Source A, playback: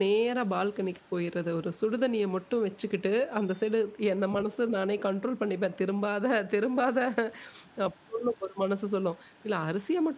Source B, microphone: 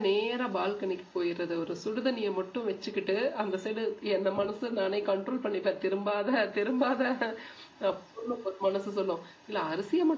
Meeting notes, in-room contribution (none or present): none